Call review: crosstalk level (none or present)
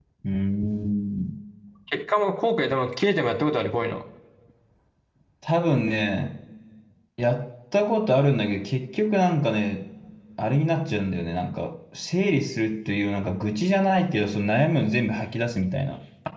none